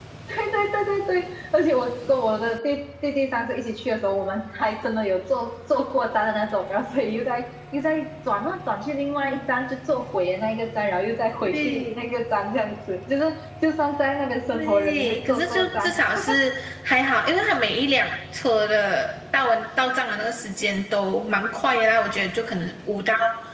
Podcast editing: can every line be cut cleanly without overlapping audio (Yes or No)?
No